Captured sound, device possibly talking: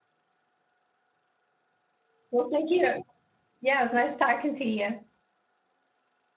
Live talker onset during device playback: 2.3 s

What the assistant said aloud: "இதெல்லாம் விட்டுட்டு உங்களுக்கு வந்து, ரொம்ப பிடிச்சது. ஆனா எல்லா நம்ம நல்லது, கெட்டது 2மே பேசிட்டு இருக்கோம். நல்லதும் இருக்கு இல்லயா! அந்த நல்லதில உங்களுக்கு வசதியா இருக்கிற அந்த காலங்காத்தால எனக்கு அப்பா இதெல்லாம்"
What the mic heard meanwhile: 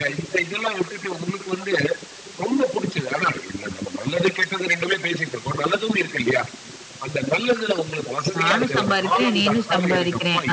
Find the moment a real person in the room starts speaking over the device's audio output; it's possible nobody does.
8.4 s

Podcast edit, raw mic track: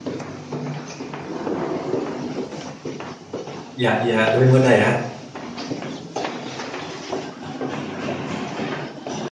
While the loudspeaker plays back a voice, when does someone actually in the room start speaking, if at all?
3.8 s

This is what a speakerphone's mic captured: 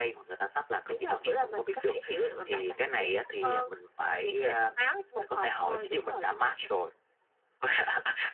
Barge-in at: none

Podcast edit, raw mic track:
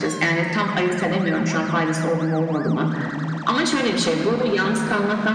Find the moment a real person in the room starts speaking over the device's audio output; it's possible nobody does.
none

